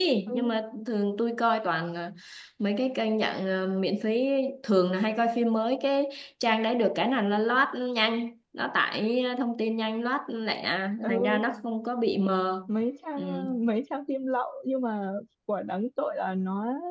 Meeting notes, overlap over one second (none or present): none